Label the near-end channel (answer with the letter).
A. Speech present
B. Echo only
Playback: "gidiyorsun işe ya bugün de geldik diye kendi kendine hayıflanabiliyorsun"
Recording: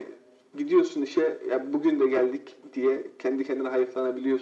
B